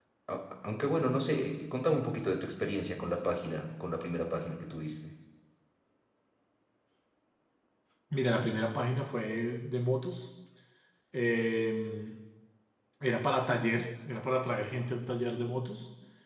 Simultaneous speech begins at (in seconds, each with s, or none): none